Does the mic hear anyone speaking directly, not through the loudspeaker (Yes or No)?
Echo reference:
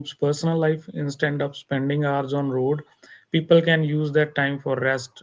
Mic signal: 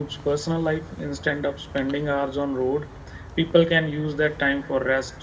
No